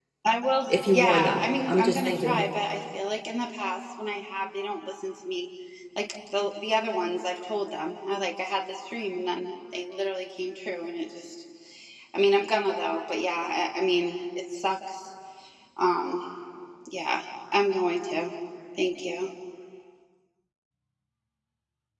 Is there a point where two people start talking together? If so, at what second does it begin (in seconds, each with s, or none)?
0.7 s